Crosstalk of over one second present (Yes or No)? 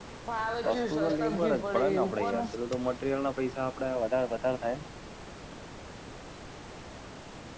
Yes